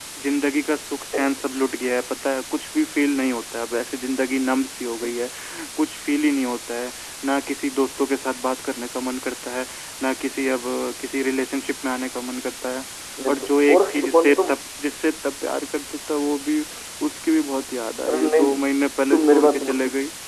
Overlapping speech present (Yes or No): Yes